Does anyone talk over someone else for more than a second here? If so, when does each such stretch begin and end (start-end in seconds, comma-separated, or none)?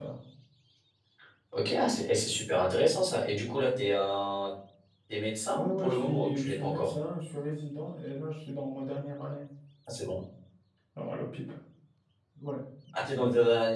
5.6-6.9